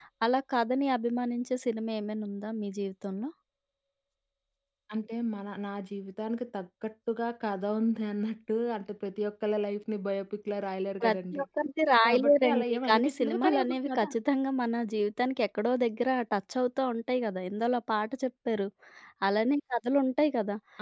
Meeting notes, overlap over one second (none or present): present